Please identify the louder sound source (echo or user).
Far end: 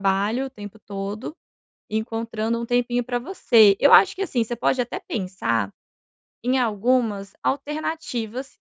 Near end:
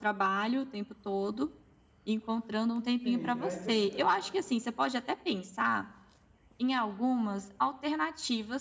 echo